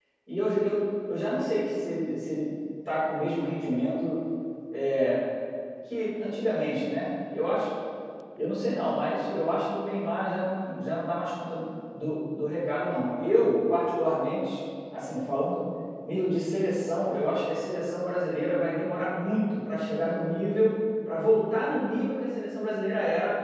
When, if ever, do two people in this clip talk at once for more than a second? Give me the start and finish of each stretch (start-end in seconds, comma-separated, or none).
none